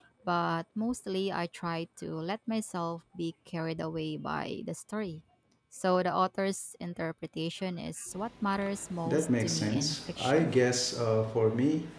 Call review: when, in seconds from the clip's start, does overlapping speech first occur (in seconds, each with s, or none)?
9.1 s